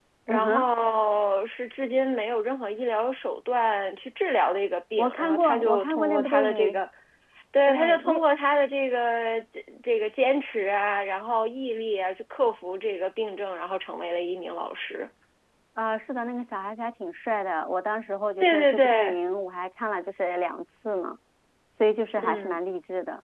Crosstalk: present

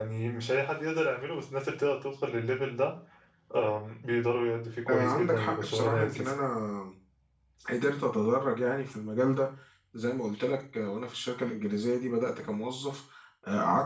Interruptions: present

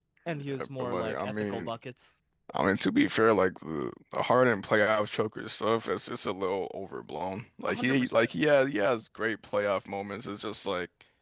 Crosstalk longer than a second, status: present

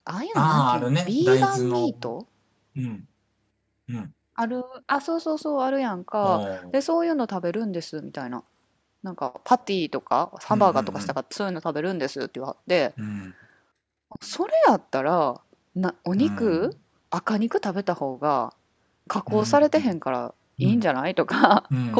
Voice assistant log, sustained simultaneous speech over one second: present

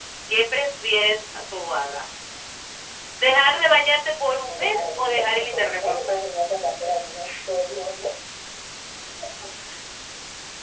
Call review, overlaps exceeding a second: present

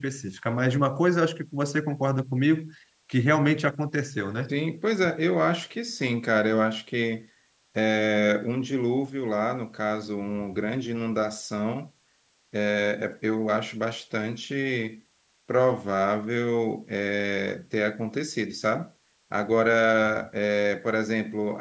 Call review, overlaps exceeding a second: none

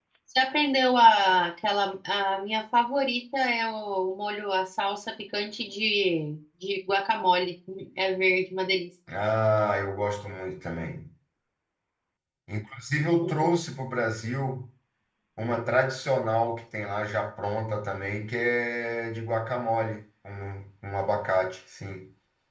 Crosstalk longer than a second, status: none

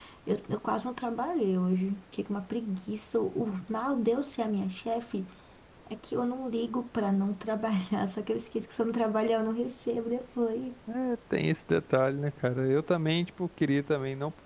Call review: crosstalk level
none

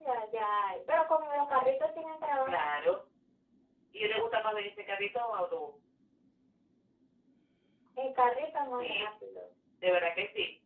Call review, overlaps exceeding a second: none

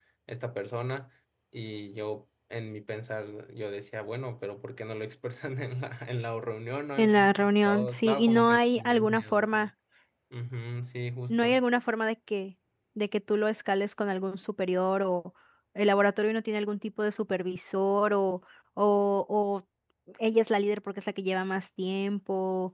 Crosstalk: present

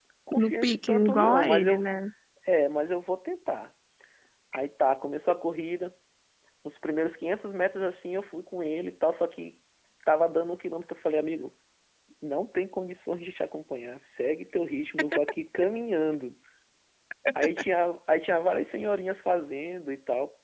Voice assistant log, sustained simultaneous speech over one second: present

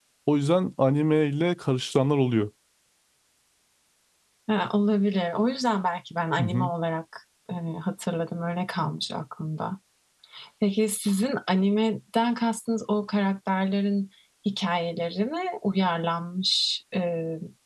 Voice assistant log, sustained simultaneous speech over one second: none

